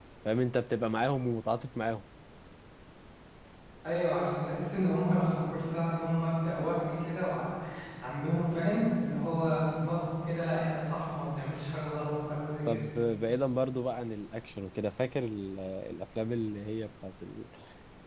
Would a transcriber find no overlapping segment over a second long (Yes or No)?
Yes